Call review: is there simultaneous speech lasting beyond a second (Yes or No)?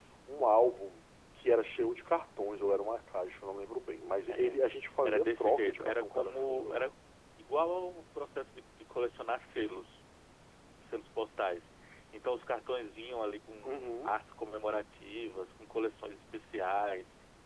Yes